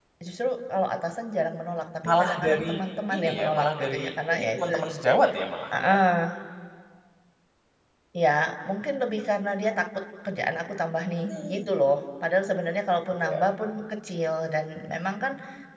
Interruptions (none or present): present